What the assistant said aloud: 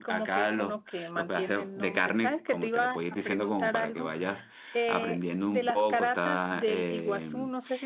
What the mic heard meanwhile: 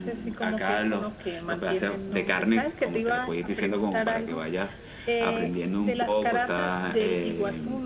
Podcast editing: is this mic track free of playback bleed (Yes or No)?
No